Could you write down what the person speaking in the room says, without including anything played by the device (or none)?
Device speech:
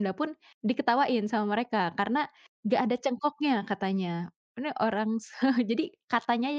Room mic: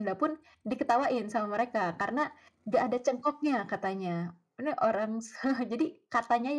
none